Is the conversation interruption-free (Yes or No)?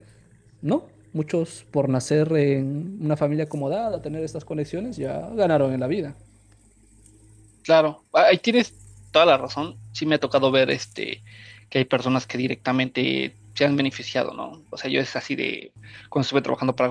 Yes